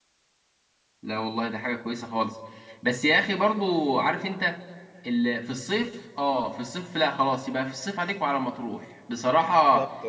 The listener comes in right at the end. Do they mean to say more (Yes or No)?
No